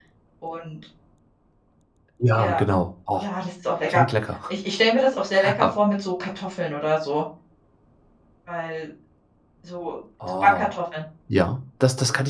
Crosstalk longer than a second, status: none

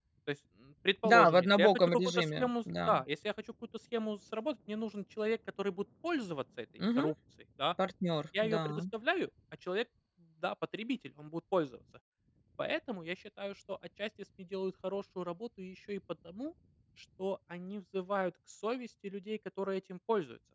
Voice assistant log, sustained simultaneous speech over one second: present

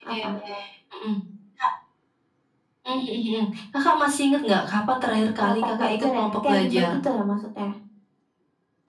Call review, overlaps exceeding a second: present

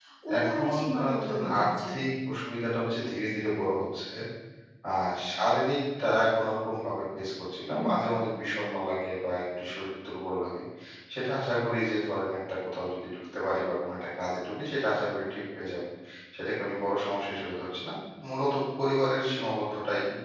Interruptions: present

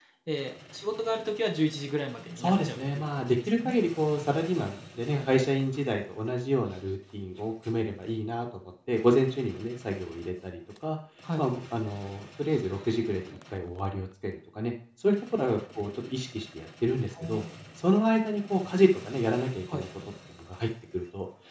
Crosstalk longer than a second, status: present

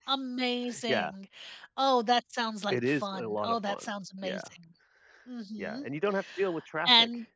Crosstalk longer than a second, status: present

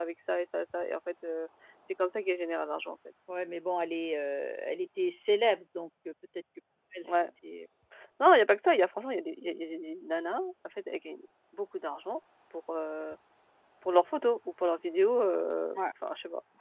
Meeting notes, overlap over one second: none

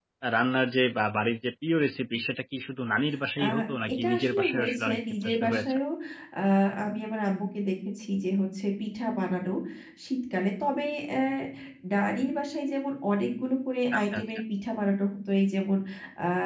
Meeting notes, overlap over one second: present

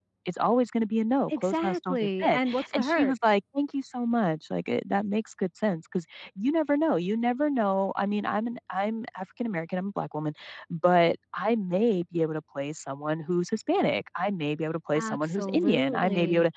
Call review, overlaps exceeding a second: present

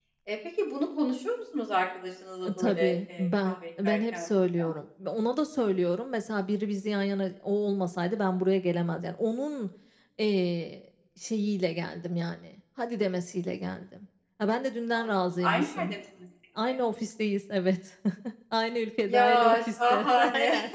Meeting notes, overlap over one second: present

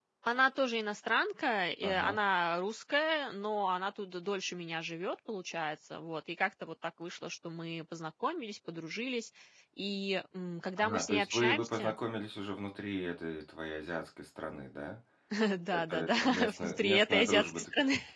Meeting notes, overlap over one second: present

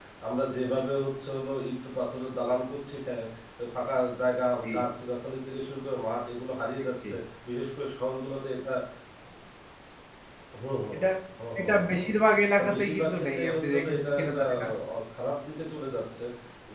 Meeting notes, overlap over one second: present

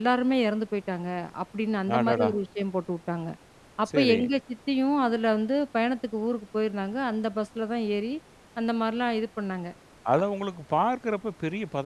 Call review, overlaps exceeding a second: none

